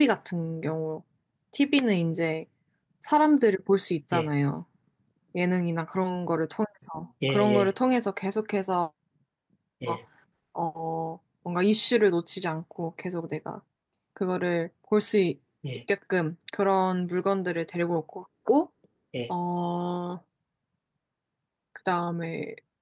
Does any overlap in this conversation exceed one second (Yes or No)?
No